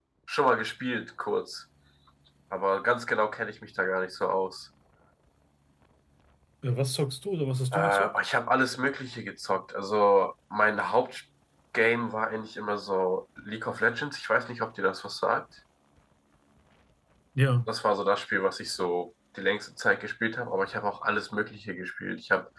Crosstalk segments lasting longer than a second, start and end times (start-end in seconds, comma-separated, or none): none